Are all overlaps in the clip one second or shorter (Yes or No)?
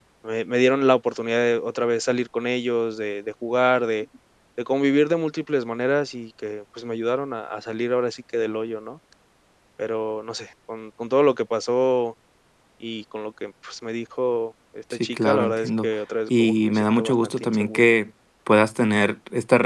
No